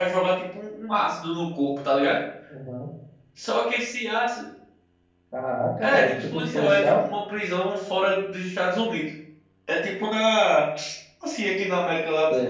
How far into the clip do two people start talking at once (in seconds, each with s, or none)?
5.8 s